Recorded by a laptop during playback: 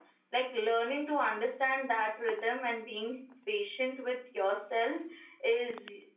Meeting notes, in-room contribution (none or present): none